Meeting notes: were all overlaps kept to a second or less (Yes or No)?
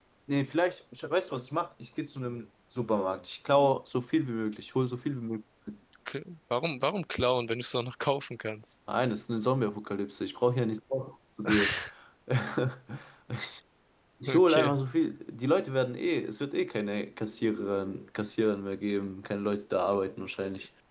Yes